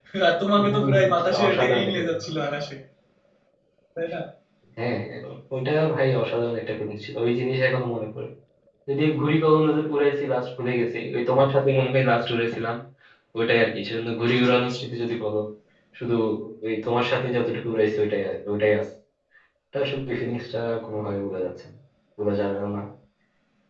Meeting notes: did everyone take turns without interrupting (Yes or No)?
No